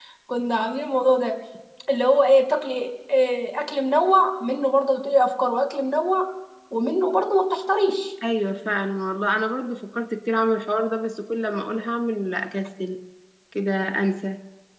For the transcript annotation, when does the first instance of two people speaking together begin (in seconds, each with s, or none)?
none